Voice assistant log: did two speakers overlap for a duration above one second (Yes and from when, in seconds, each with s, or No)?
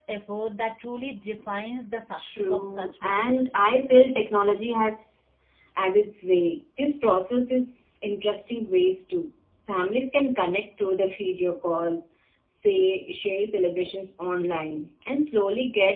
Yes, from 2.2 s